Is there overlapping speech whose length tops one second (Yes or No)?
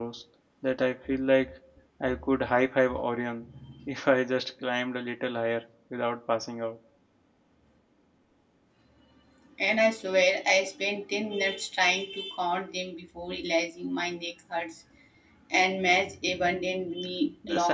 No